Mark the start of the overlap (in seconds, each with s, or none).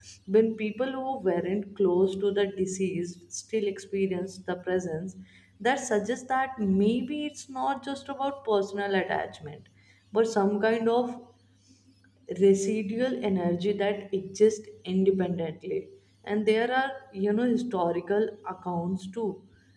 none